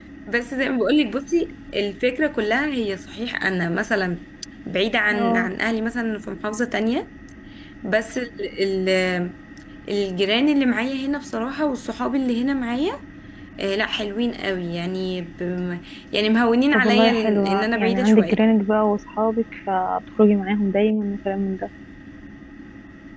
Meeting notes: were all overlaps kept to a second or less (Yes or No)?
No